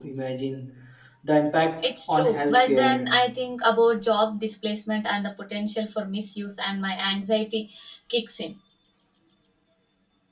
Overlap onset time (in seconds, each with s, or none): 1.8 s